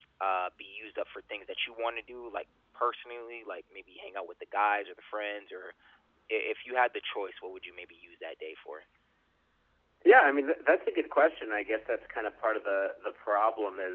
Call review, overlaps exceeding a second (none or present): none